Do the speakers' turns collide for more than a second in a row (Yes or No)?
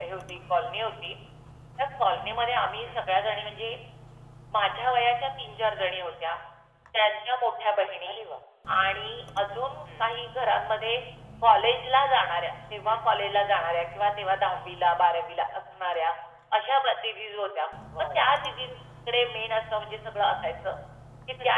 No